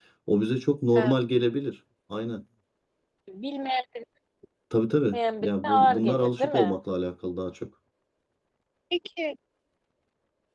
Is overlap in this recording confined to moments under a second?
No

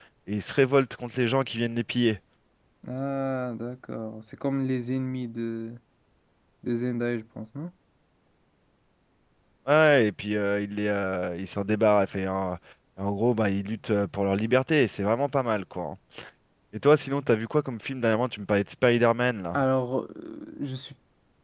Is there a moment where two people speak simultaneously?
No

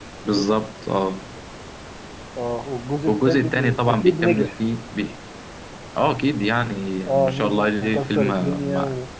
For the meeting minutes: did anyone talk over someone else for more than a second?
Yes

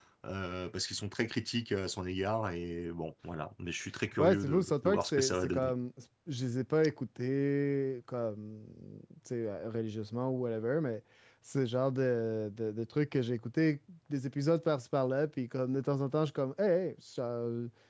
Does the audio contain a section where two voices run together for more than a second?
Yes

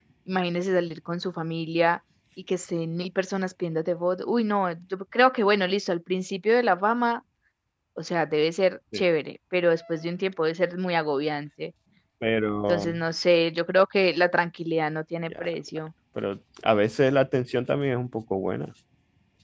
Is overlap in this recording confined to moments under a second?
Yes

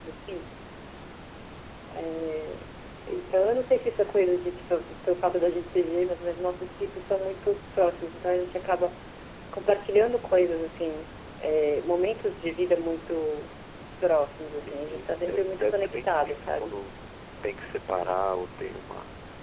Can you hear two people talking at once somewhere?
Yes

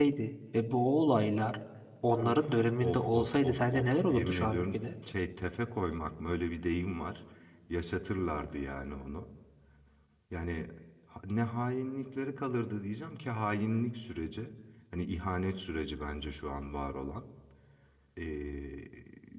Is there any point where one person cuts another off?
Yes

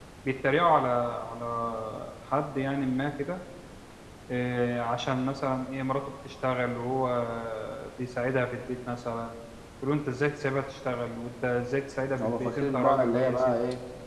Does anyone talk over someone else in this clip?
Yes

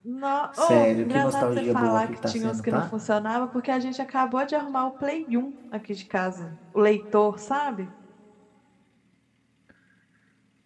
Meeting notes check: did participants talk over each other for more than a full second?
Yes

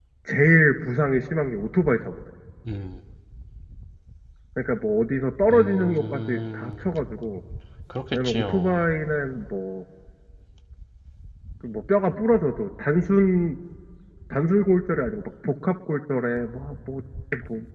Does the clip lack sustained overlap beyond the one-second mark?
No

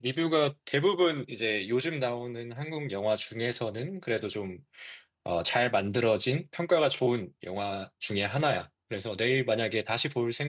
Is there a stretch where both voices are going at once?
No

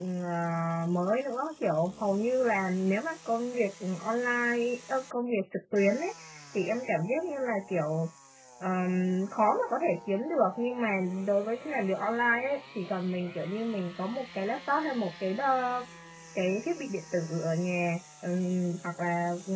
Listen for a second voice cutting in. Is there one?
No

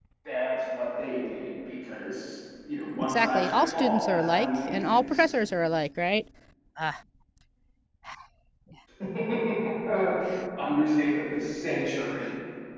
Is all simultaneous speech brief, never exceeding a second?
No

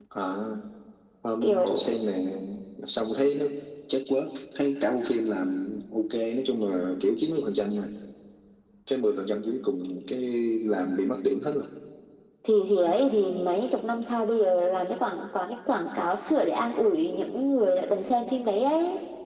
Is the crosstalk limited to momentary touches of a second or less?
Yes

